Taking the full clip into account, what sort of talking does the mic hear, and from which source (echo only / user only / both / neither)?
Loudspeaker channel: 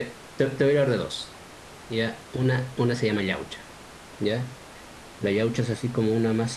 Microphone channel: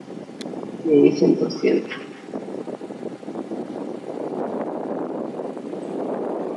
user only